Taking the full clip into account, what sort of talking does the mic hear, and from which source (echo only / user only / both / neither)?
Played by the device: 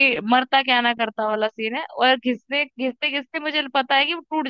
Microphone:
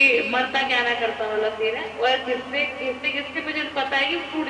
echo only